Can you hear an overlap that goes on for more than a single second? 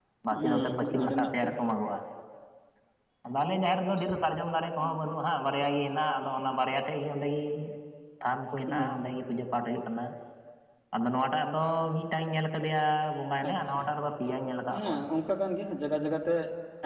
Yes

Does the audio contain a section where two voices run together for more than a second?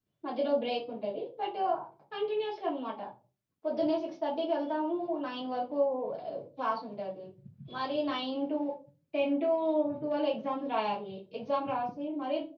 No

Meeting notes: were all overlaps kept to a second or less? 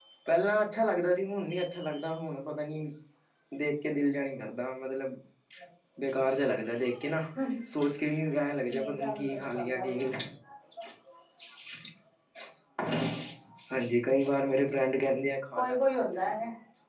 No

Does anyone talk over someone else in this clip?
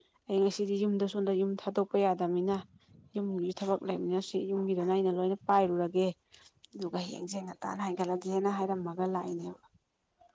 No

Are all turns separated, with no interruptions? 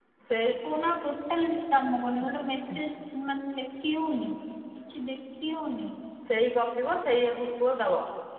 Yes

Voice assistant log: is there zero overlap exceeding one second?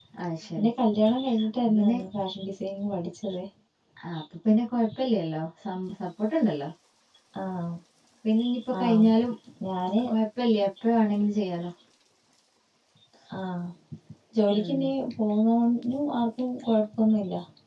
Yes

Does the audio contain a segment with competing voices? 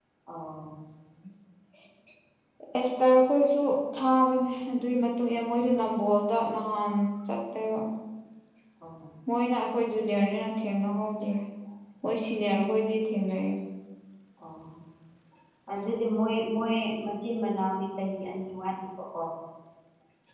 No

